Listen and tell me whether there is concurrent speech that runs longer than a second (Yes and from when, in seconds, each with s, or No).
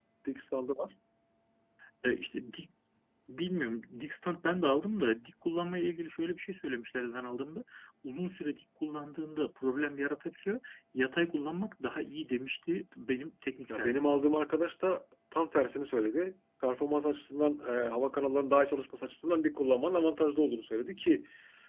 No